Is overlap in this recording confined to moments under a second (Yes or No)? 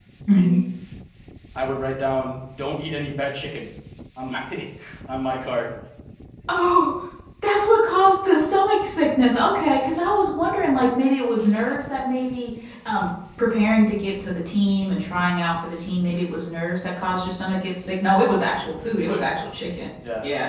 Yes